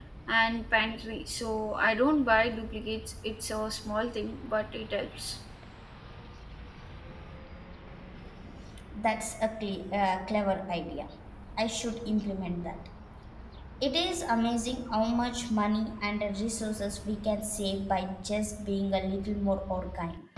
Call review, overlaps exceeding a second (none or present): none